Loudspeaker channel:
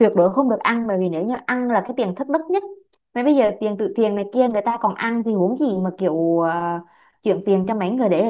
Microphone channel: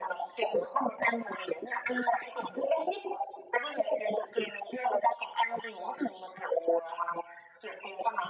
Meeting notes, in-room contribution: none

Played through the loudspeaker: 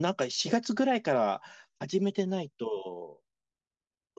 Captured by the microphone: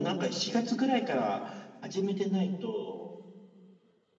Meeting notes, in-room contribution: none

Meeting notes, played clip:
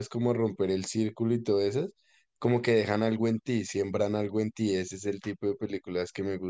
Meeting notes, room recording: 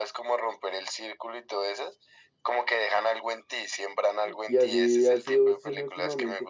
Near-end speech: present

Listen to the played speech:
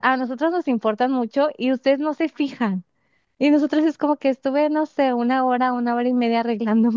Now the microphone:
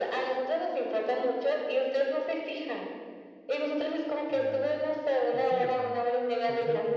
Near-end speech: present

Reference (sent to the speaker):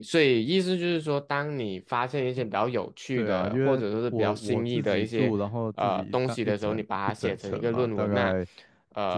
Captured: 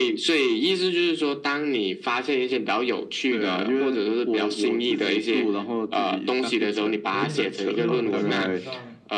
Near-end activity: present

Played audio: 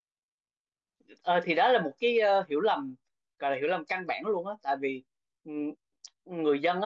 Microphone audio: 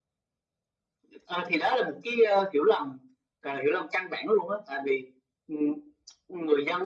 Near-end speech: none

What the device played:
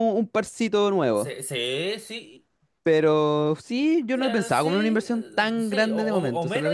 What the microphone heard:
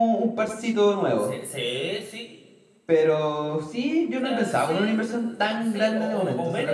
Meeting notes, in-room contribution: none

